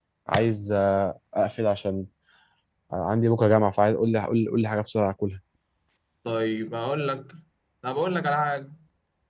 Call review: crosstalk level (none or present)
none